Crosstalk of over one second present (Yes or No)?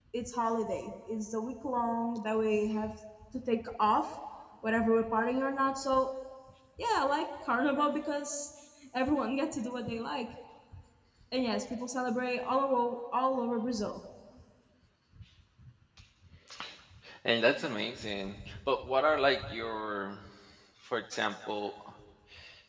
No